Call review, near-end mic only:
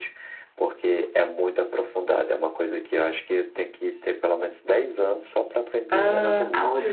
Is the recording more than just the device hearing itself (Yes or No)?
Yes